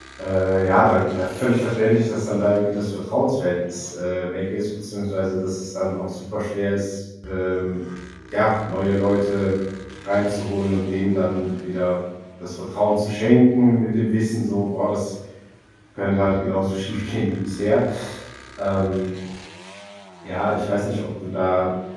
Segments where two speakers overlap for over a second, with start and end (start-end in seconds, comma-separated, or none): none